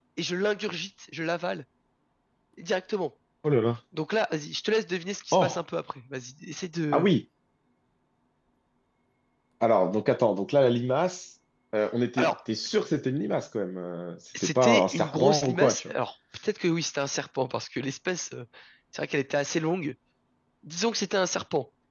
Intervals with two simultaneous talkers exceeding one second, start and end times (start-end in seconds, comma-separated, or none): 14.4-15.9